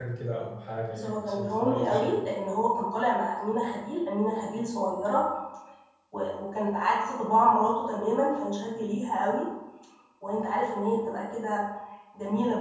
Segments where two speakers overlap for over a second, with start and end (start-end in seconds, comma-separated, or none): 0.9-2.2